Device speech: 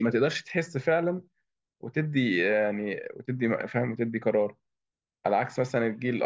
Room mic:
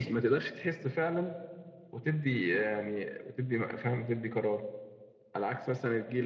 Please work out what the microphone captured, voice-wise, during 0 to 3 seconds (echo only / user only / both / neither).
echo only